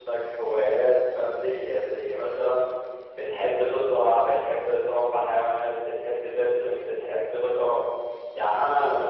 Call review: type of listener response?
listening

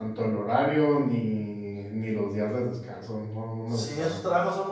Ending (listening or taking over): taking over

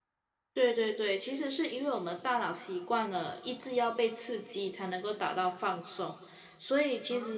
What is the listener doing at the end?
listening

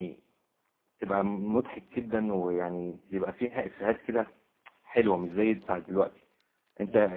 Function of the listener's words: listening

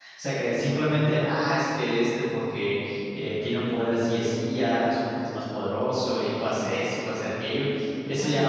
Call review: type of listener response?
taking over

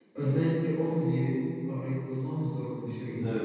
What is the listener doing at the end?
taking over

